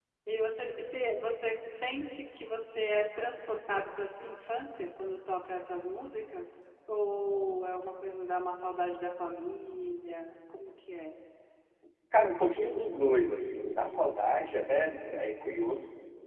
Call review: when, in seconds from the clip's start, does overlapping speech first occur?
none

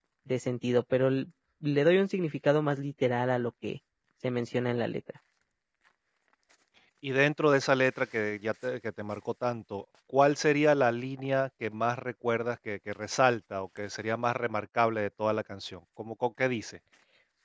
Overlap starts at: none

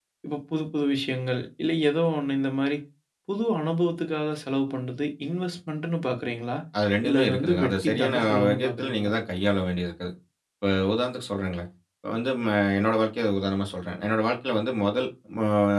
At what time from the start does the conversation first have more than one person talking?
7 s

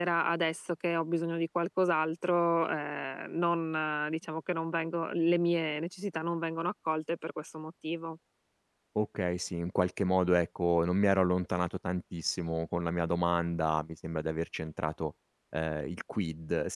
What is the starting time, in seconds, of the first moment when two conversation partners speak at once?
none

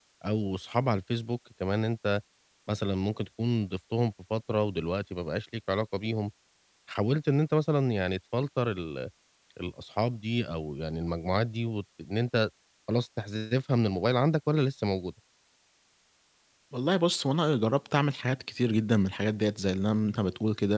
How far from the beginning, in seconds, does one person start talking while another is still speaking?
none

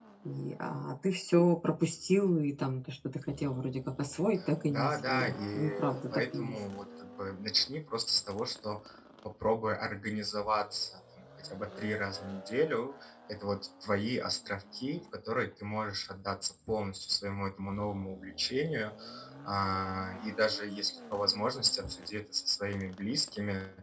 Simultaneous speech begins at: 5 s

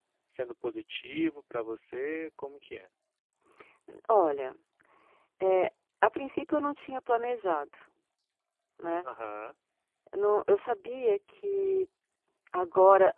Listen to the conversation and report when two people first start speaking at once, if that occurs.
none

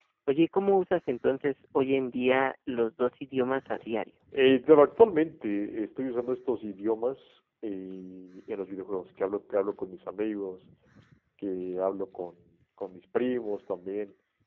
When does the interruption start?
none

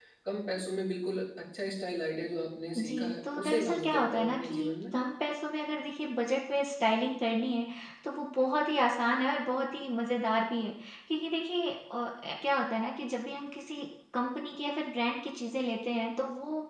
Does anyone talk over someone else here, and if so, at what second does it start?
3 s

